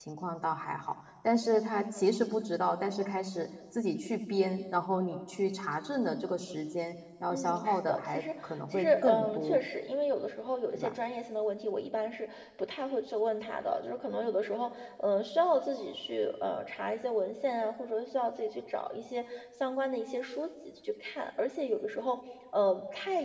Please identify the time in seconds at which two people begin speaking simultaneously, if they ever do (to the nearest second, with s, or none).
7 s